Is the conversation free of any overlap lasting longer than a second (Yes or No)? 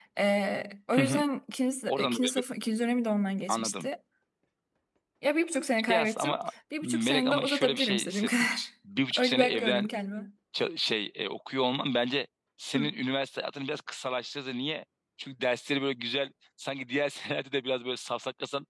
No